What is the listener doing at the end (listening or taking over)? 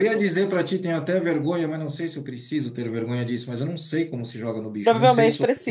taking over